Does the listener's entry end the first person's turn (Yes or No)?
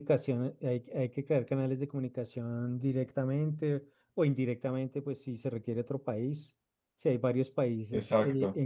No